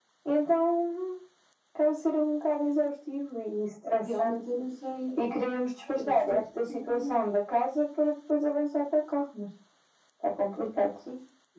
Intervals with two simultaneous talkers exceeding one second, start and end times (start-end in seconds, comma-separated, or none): none